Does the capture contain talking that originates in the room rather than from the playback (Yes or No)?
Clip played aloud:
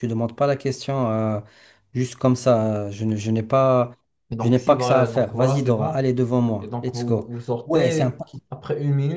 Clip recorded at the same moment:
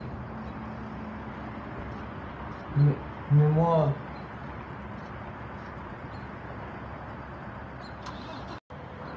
Yes